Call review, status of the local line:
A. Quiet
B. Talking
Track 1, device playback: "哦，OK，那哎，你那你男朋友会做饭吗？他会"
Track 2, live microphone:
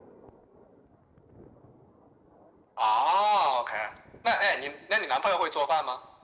A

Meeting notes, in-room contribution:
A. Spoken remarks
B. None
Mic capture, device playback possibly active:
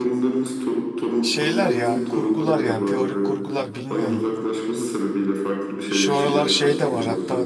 A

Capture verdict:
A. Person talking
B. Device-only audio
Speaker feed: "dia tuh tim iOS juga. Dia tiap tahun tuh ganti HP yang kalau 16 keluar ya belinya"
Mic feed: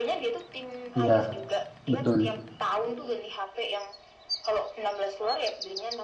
A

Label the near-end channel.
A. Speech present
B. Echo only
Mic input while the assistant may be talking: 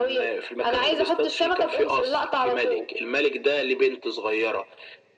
B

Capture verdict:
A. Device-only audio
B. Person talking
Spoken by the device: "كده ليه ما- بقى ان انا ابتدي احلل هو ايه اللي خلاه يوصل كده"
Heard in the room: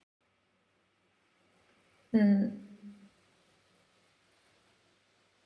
B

